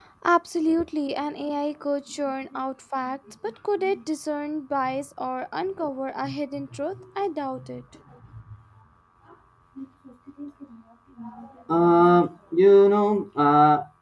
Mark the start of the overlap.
none

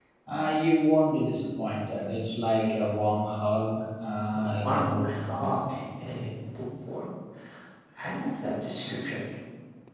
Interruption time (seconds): 4.3 s

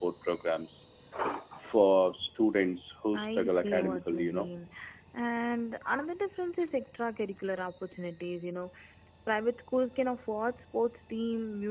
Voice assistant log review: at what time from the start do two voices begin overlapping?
3.1 s

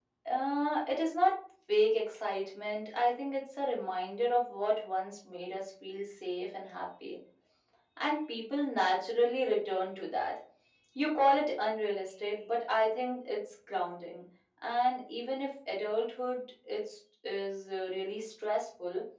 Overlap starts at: none

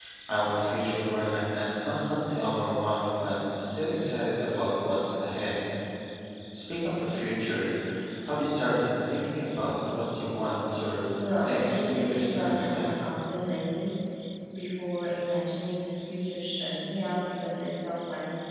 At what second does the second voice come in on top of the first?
11.4 s

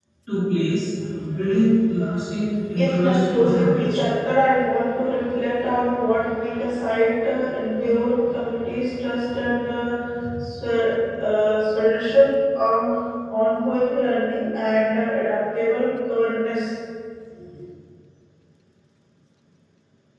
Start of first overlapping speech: 2.7 s

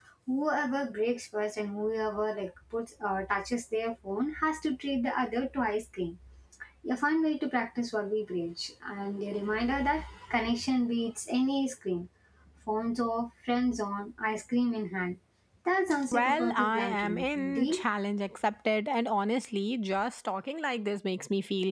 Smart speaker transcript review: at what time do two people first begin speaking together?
16.1 s

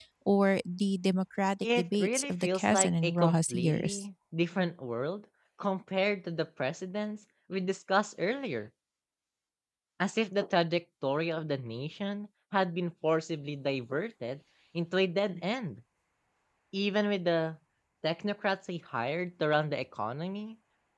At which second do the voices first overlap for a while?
1.6 s

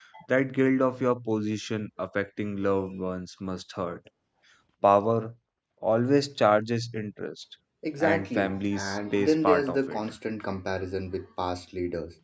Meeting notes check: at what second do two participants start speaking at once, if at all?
8.0 s

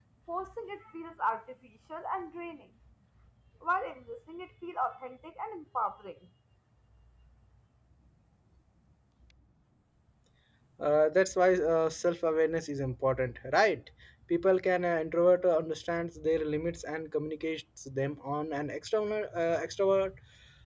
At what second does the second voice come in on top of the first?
none

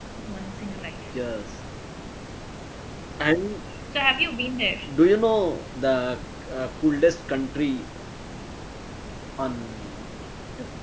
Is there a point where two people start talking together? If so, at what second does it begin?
none

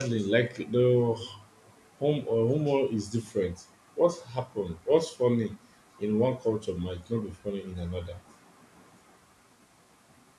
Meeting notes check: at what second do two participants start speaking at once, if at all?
none

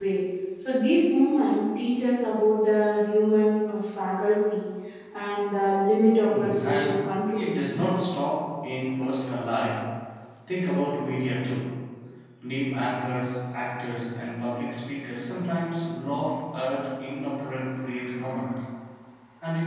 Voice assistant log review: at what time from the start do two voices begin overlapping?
6.2 s

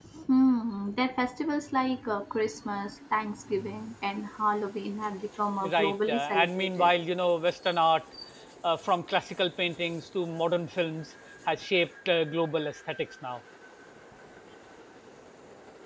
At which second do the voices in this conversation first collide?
5.6 s

